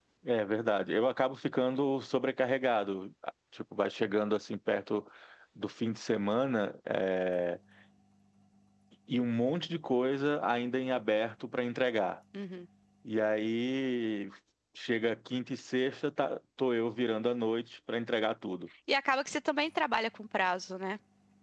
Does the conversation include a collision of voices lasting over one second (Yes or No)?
No